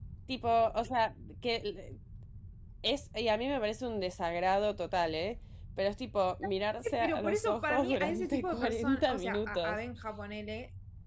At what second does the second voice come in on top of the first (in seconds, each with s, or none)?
7.0 s